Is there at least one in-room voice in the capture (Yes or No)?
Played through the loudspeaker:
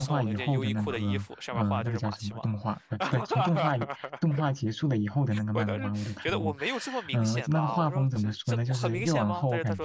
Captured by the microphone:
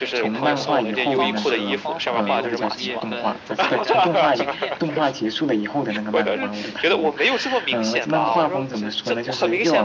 Yes